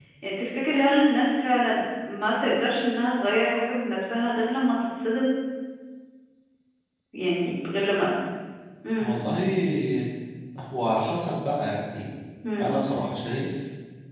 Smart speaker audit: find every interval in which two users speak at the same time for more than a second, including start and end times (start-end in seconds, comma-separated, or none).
none